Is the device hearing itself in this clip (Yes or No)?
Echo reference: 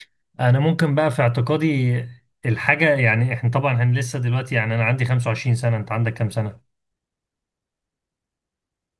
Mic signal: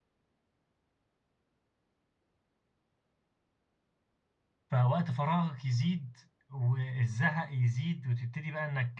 No